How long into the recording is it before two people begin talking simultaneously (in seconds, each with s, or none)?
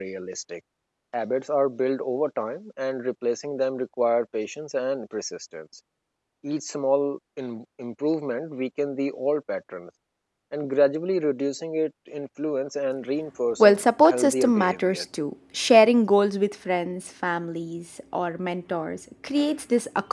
13.6 s